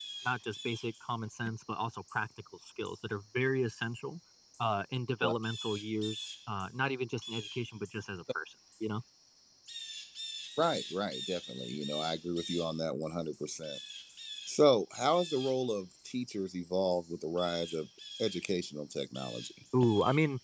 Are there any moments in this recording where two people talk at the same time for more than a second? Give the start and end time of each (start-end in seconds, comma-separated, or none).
none